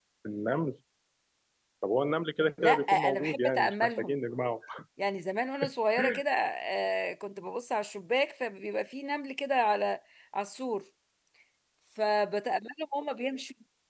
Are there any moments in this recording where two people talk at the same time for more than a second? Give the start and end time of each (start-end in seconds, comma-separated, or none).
2.6-4.2